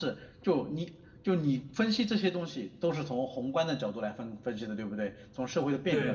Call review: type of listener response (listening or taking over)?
taking over